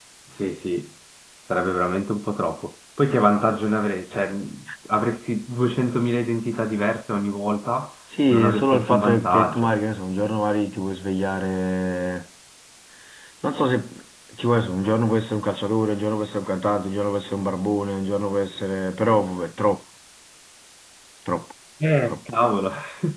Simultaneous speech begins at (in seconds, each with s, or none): 8.3 s